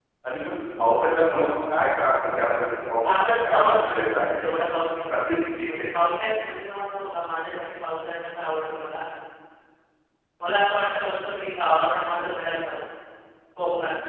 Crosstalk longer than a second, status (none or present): present